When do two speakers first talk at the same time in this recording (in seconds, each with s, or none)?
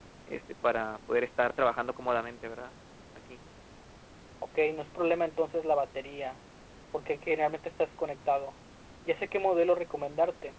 none